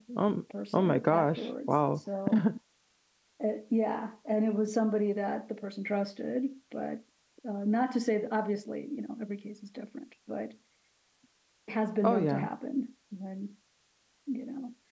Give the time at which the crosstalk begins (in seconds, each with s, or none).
0.7 s